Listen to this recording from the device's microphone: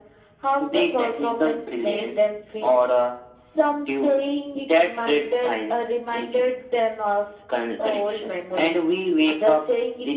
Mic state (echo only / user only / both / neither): echo only